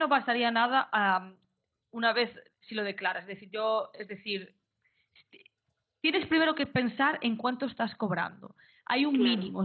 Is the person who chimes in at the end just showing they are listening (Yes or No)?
Yes